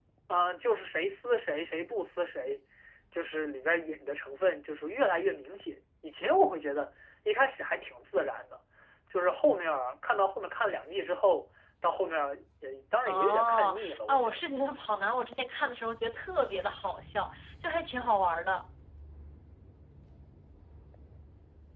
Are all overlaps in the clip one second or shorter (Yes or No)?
No